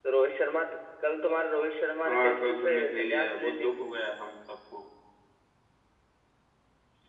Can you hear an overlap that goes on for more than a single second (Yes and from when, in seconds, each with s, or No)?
Yes, from 2.0 s